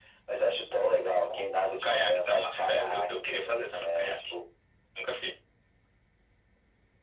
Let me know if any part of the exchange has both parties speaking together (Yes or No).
Yes